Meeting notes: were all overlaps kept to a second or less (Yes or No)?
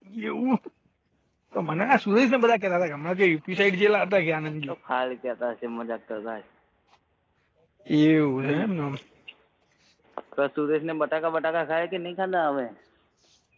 Yes